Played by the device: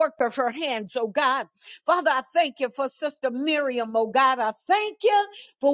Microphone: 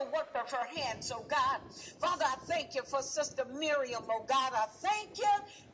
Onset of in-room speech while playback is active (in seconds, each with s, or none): none